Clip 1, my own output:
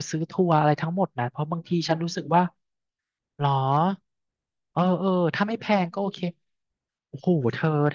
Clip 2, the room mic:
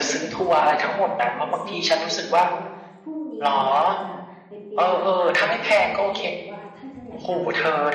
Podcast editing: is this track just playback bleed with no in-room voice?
No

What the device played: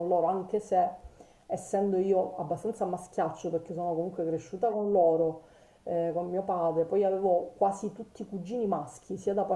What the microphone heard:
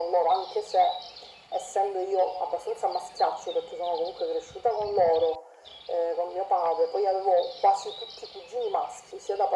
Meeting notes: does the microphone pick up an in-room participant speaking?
No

